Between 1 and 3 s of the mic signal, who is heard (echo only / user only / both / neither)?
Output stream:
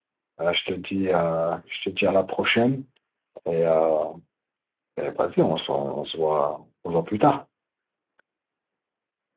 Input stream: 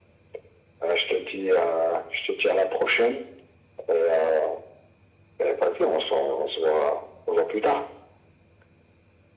echo only